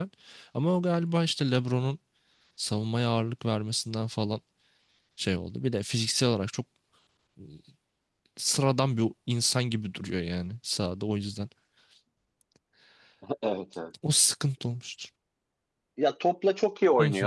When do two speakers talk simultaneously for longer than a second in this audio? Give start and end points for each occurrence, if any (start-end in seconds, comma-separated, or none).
none